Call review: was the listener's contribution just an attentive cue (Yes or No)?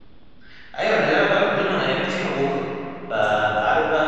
Yes